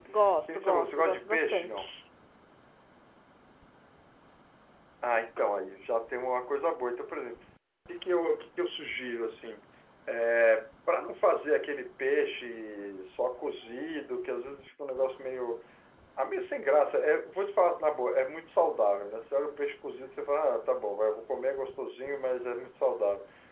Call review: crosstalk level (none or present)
present